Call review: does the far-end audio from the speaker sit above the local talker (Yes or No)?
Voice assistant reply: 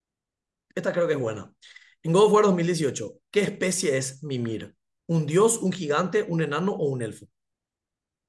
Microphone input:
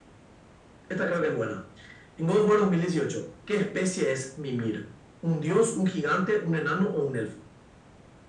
Yes